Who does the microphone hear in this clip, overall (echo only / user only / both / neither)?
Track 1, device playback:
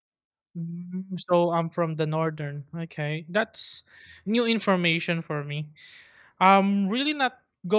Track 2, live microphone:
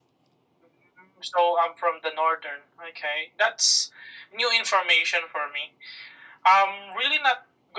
echo only